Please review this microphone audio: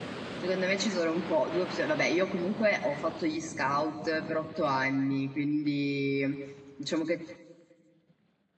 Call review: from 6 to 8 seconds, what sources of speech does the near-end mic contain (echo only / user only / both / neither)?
user only